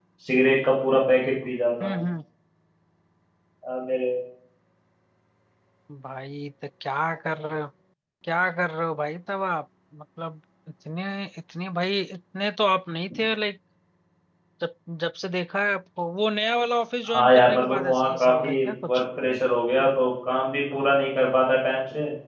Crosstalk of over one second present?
Yes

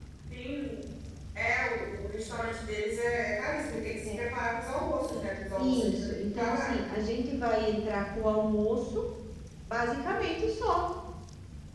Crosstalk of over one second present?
Yes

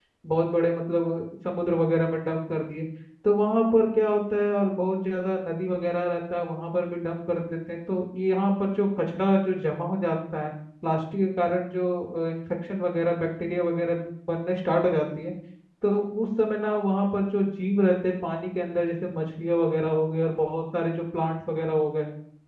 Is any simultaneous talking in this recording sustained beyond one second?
No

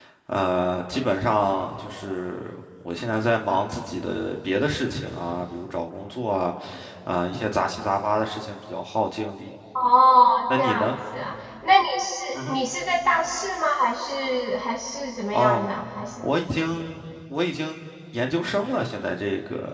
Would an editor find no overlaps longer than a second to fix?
Yes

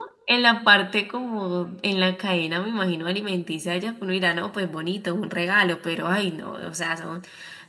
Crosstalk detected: No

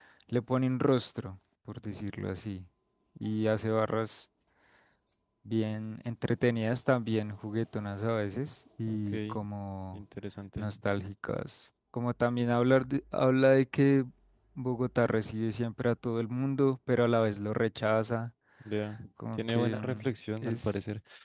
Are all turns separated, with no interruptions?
No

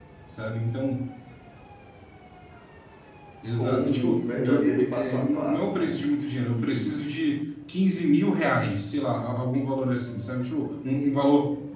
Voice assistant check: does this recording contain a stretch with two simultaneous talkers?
Yes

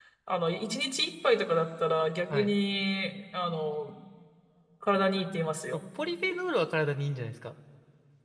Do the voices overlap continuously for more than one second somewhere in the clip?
No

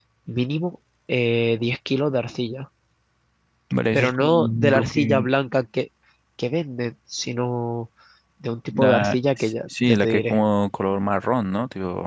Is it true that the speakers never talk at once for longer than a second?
No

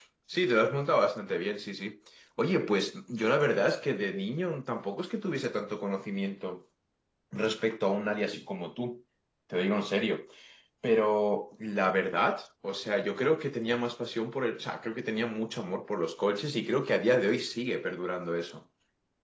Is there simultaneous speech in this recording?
No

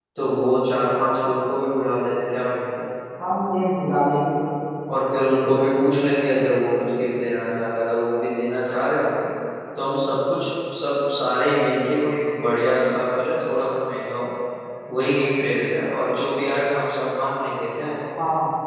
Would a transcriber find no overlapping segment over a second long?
Yes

